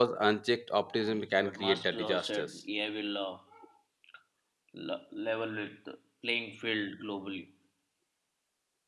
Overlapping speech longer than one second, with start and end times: 1.0-2.6

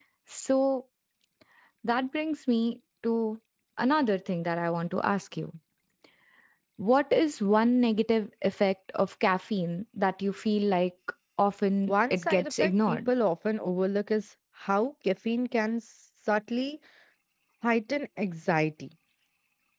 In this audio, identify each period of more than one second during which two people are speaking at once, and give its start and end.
11.9-13.1

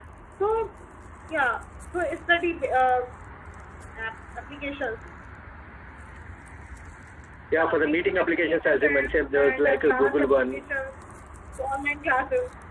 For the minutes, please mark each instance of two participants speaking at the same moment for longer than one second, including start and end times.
7.6-10.6

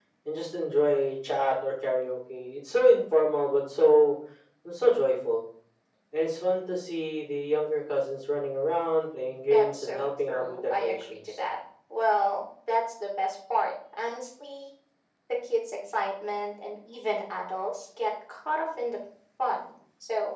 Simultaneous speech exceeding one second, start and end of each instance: 9.5-11.2

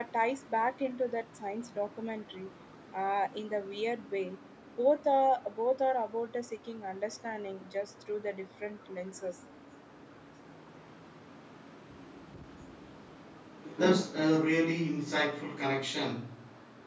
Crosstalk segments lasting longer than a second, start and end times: none

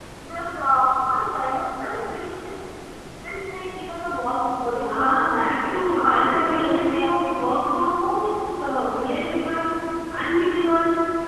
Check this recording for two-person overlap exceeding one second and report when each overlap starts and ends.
4.6-7.4

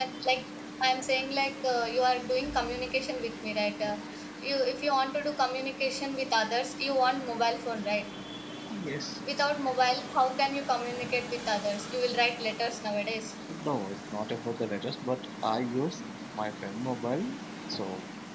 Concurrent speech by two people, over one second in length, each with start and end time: none

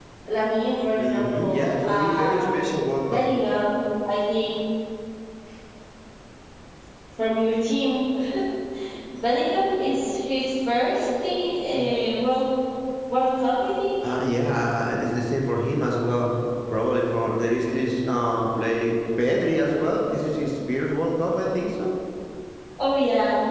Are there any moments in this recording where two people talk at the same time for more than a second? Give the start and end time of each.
1.0-2.5

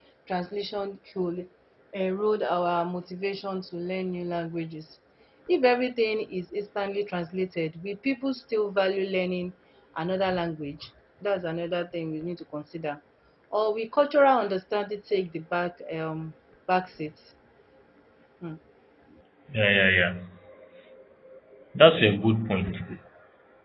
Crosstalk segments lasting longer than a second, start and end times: none

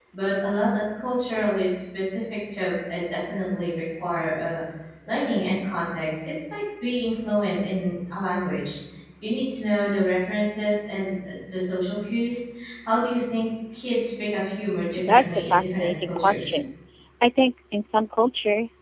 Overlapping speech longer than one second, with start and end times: 15.0-16.5

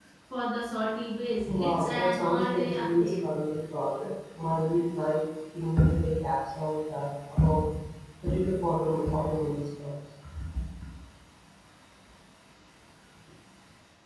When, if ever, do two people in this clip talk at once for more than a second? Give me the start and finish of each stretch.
1.5-3.1

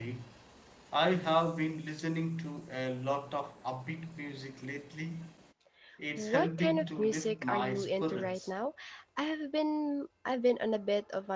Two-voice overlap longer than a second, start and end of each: 6.2-8.5

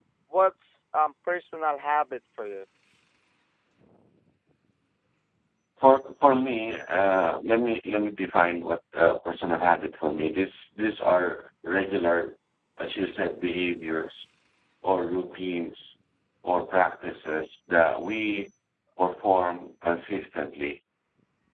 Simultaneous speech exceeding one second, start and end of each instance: none

